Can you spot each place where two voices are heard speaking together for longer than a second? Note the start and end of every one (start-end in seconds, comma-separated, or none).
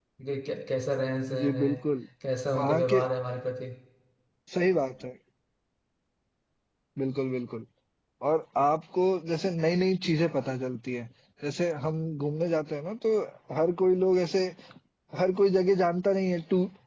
none